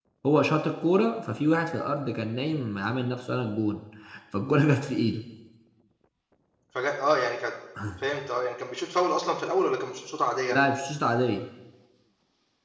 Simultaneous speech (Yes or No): No